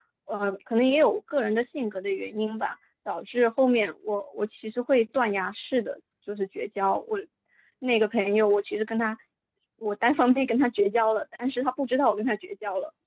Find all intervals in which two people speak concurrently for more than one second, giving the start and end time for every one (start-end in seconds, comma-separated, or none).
none